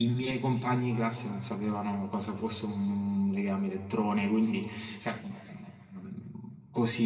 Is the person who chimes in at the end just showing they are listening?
Yes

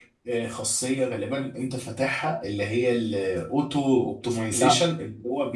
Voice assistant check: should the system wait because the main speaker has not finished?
Yes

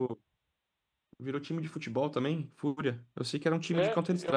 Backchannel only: No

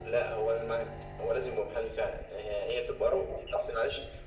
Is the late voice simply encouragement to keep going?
Yes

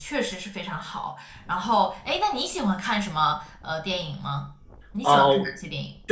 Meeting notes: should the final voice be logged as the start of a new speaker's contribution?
Yes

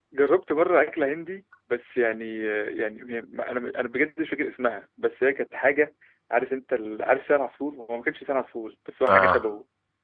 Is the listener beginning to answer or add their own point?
No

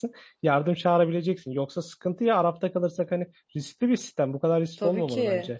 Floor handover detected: Yes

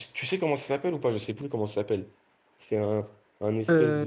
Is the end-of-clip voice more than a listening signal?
No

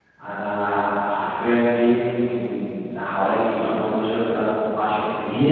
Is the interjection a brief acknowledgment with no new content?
No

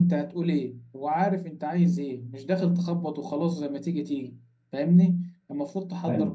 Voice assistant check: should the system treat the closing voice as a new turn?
No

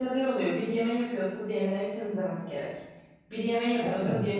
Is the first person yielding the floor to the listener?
No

